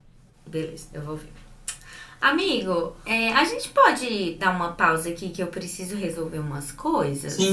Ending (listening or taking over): taking over